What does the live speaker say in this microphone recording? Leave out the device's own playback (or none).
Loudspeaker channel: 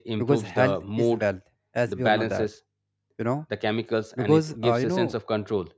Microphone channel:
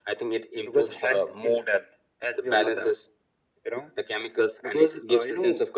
none